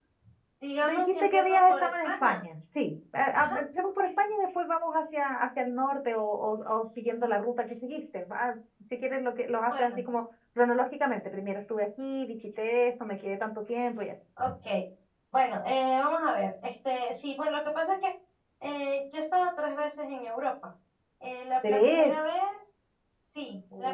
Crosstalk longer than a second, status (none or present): present